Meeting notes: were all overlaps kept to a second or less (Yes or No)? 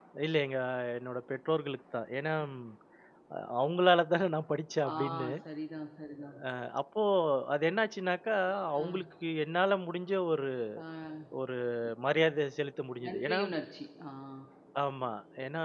Yes